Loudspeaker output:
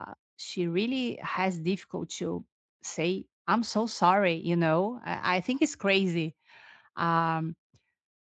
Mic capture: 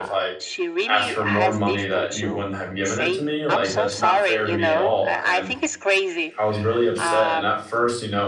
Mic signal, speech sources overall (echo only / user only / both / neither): both